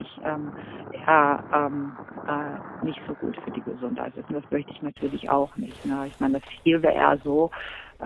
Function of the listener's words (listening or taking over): listening